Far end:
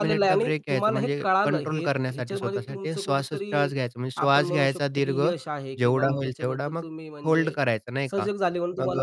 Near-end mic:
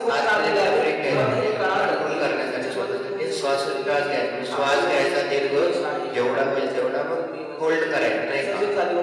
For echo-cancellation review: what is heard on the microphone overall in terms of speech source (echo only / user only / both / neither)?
both